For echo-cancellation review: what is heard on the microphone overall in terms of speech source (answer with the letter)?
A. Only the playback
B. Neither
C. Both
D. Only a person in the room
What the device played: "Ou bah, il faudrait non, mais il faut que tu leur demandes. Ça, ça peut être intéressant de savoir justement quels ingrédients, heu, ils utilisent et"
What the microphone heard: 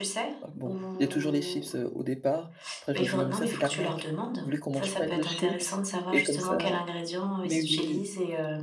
C